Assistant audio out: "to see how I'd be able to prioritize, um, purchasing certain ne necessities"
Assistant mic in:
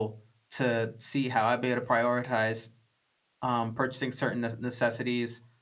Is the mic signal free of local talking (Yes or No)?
Yes